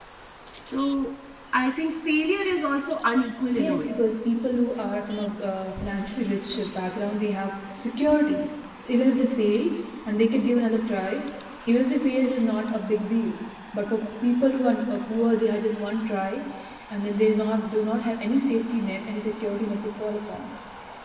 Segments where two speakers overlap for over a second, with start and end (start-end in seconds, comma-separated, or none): none